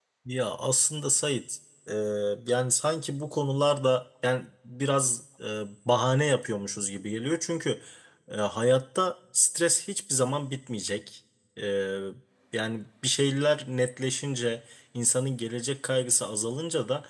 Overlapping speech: No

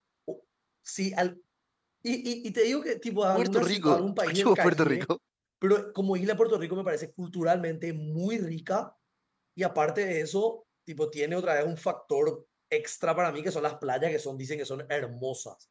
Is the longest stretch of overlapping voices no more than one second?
No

